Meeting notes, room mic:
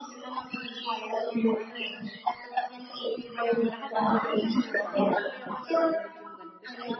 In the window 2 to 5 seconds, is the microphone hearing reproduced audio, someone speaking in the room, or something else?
both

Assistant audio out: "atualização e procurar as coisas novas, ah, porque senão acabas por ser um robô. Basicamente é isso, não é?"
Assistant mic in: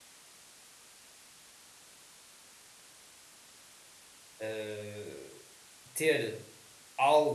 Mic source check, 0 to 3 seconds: neither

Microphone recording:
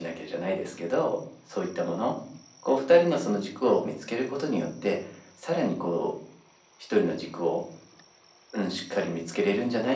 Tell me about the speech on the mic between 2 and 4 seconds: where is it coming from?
echo only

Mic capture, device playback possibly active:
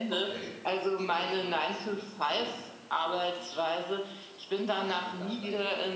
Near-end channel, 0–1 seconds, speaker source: both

